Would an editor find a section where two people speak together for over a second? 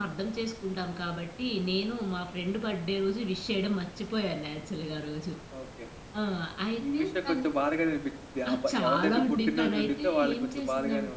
Yes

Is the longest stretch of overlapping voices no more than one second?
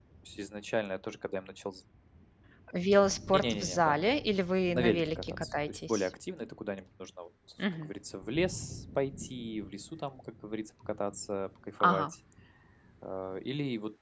No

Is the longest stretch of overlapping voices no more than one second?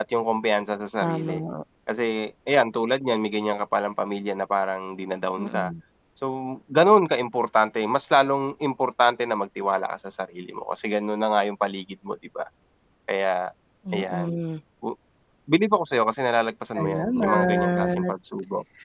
No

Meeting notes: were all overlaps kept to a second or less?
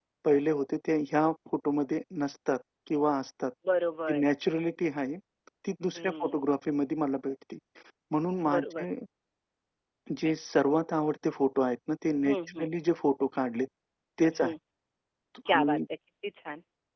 Yes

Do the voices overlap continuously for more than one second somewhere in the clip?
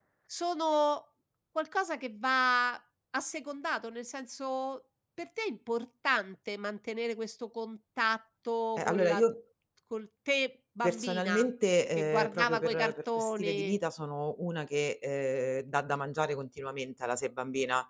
Yes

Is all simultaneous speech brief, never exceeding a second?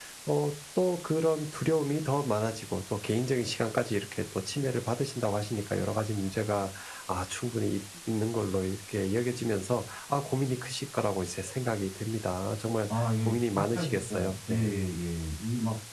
No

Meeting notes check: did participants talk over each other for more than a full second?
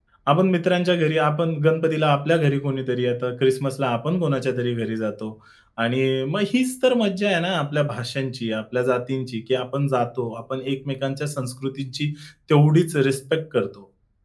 No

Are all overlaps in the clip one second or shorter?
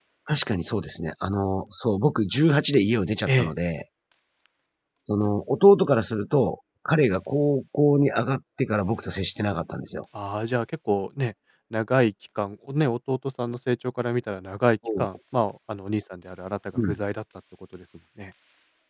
Yes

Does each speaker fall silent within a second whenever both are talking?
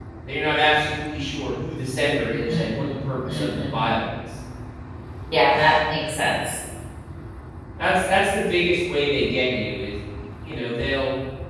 No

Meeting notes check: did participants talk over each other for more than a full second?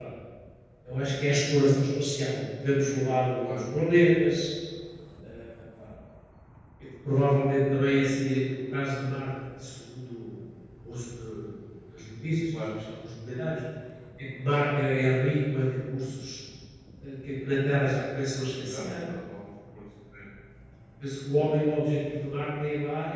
No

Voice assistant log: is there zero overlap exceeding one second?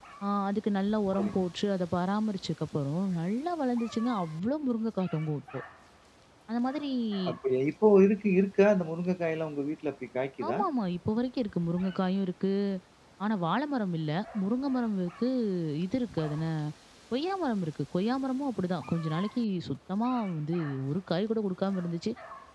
Yes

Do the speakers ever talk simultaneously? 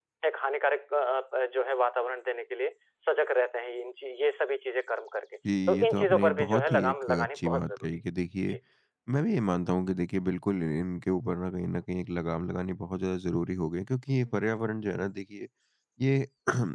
Yes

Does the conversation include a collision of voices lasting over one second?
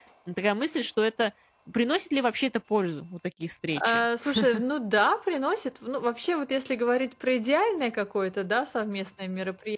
No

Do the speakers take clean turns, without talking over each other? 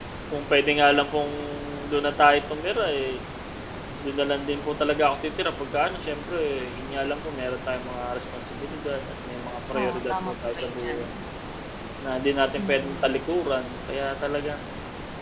No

